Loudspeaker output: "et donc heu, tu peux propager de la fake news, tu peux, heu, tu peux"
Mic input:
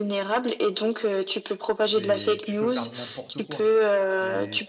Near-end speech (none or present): present